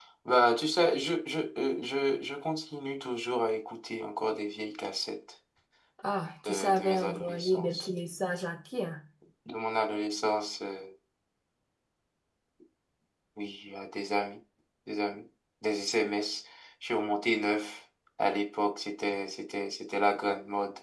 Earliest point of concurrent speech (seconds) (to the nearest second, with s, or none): 6 s